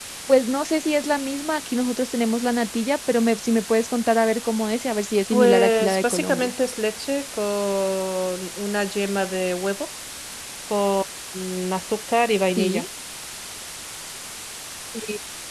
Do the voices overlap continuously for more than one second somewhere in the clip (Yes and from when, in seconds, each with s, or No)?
Yes, from 5.3 s